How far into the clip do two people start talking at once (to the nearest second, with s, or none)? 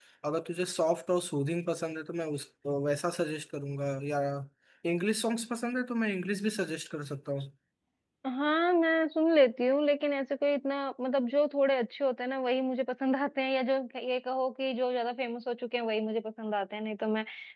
none